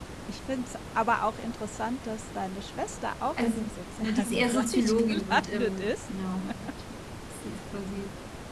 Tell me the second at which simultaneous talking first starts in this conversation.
3 s

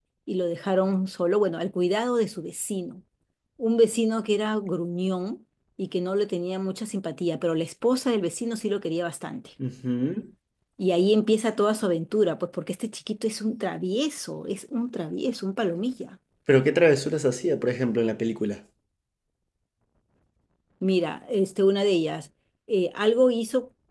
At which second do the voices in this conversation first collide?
none

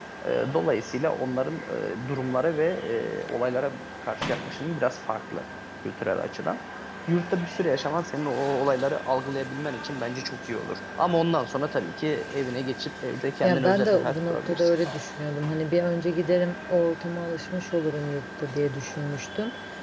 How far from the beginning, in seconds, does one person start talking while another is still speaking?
13 s

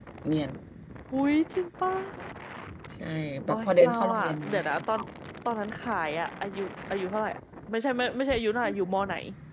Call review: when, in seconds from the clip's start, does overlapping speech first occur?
3 s

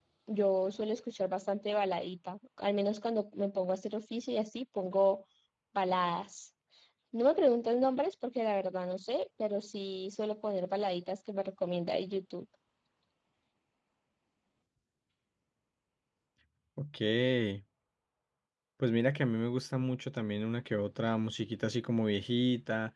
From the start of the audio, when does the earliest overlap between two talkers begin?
none

